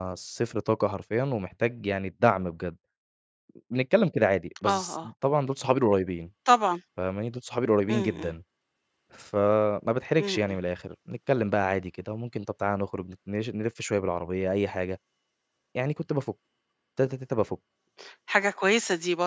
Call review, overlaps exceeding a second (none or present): none